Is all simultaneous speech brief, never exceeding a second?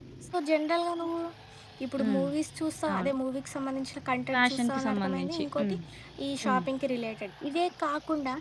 No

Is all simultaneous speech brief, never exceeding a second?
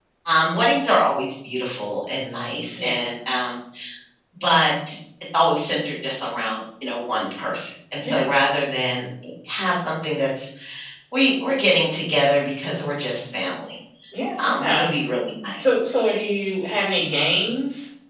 Yes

